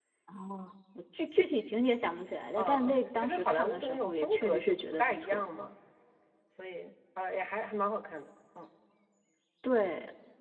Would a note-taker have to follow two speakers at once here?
Yes, from 2.6 s

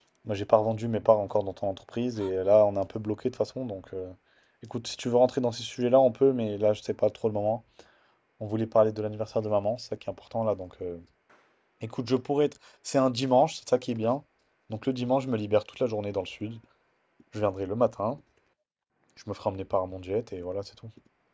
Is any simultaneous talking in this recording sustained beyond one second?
No

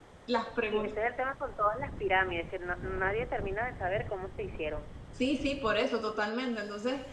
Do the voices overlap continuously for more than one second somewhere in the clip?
No

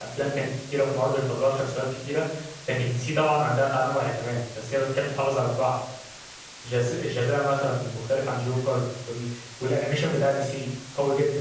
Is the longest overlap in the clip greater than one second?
No

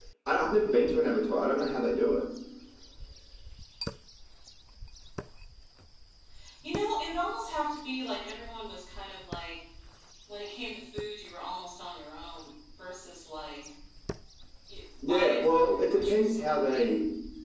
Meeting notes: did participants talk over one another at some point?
Yes, from 15.1 s

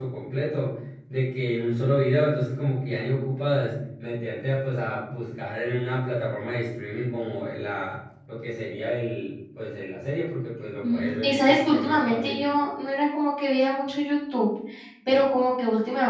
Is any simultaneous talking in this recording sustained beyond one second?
Yes, from 10.8 s

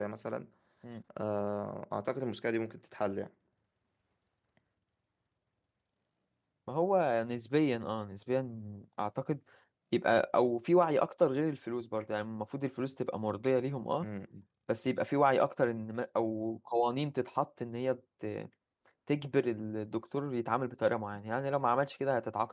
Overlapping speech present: No

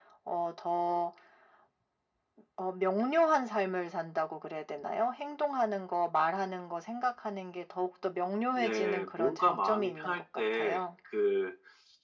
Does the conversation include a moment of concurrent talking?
Yes, from 8.6 s

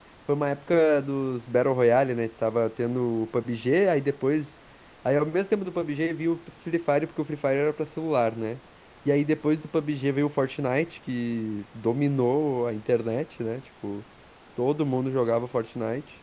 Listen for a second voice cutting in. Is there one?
No

